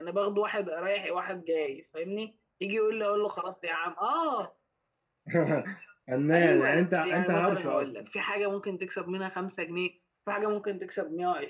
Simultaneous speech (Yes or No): Yes